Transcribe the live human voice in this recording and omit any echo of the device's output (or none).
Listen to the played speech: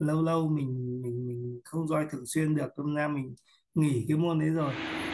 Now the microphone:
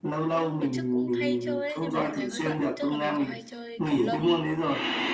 cũng đợt trước cũng hay chơi ấy nhưng mà dạo này hơi bận trước là mình có hay chơi cầu lông